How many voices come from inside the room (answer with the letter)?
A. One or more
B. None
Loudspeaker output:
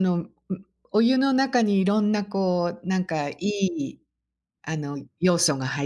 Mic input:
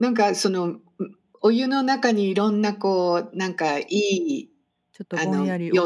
A